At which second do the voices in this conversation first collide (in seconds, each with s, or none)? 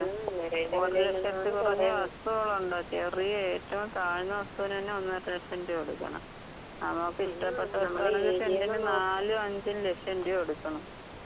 0.8 s